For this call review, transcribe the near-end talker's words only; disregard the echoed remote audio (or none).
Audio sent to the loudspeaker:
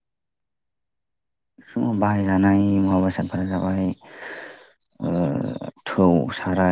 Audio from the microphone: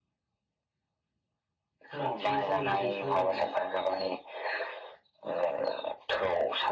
फारागथिनि सोमोन्दै जों सावरायबाय।